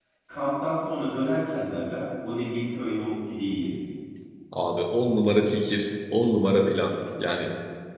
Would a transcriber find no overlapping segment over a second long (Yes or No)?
Yes